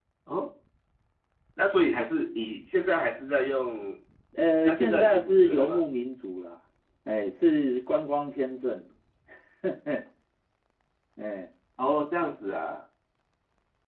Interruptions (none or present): present